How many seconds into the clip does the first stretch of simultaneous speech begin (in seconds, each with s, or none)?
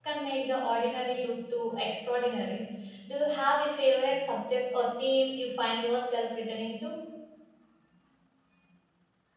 none